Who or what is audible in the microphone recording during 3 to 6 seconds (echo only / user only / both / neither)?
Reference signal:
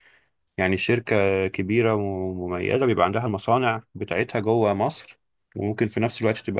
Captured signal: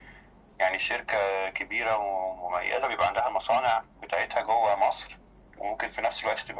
echo only